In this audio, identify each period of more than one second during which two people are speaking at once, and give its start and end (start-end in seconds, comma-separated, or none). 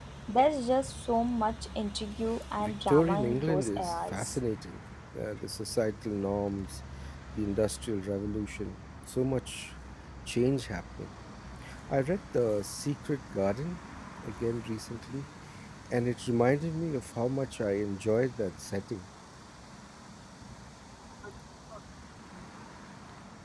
2.6-4.4